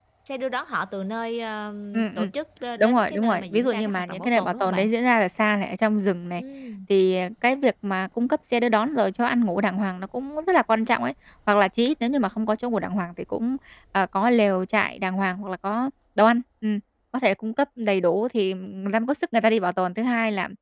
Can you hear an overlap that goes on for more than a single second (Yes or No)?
Yes